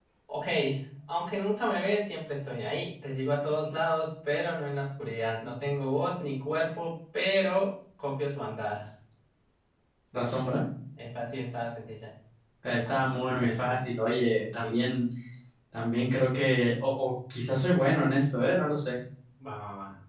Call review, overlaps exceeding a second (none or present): present